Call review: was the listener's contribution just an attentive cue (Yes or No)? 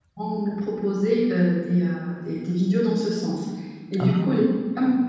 Yes